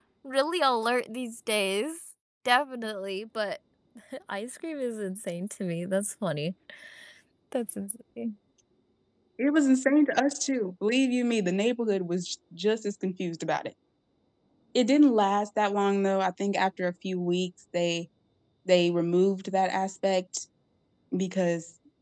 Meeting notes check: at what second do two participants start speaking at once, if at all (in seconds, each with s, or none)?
none